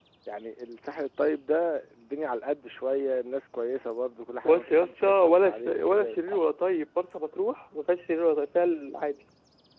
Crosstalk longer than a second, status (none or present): present